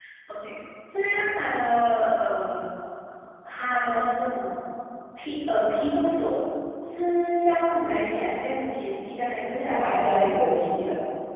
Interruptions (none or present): present